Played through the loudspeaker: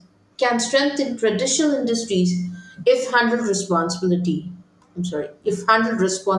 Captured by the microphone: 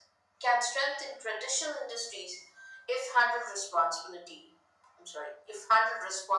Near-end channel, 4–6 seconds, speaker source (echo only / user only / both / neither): echo only